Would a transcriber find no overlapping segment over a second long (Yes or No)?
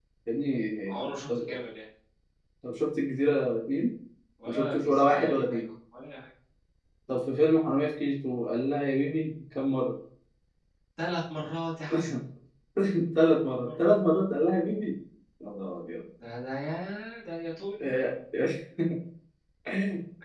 No